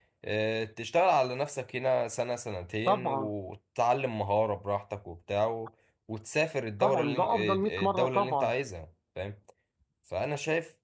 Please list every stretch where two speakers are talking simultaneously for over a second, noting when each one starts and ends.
6.8-8.5

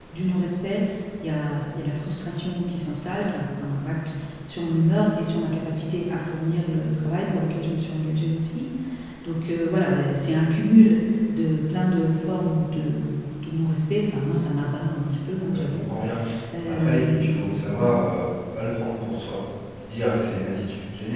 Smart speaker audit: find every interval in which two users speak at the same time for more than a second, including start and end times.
16.6-18.0

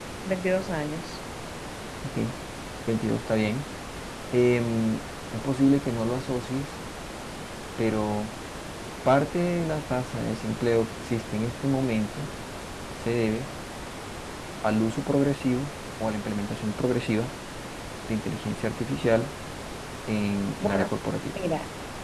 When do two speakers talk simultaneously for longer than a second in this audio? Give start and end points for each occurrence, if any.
none

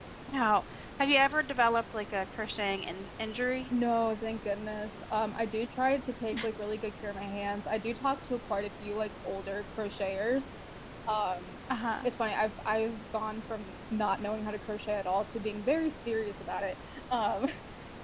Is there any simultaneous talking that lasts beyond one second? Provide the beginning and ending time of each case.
none

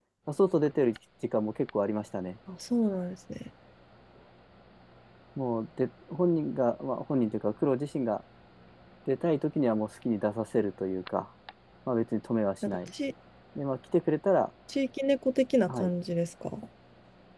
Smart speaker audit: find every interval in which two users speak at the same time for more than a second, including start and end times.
none

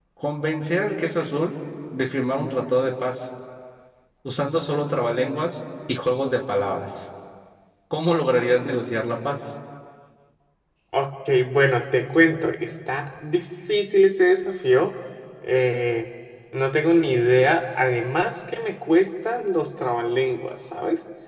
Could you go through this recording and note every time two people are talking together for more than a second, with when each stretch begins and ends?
none

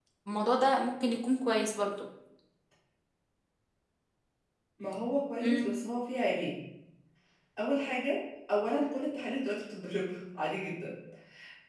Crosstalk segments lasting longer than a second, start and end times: none

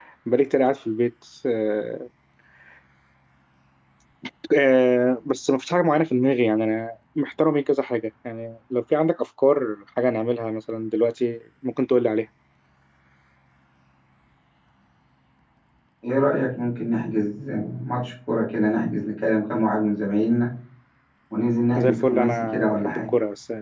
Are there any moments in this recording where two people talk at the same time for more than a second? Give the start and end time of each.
21.8-23.0

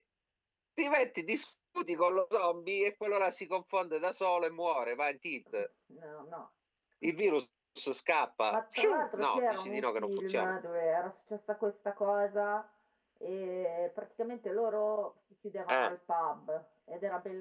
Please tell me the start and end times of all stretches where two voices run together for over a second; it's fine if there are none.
8.5-10.5

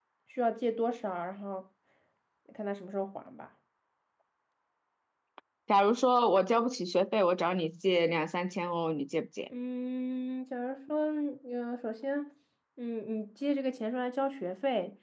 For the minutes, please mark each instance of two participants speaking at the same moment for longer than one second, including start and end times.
none

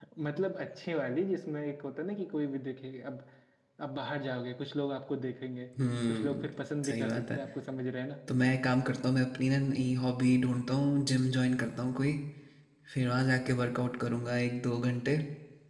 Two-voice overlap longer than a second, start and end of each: none

